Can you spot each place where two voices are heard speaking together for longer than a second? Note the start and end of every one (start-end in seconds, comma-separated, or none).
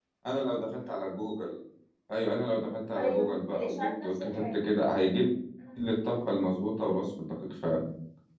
3.0-4.6